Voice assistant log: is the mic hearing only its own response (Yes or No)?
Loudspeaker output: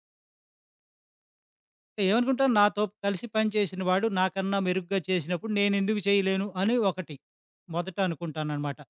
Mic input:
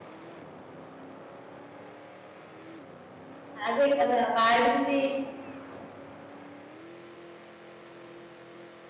No